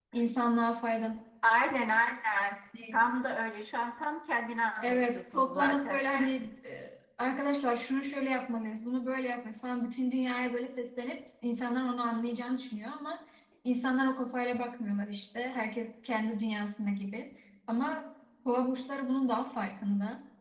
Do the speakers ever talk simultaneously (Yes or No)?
Yes